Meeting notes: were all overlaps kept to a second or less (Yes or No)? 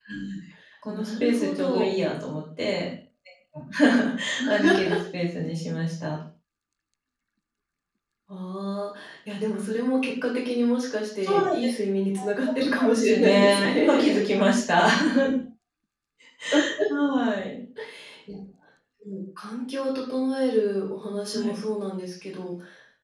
No